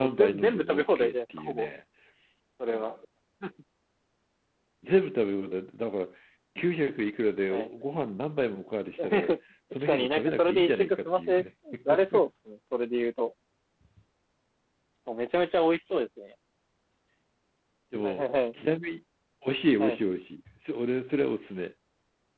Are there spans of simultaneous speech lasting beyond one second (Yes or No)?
Yes